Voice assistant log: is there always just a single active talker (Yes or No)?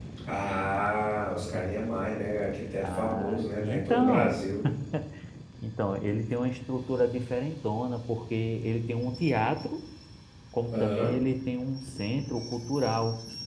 No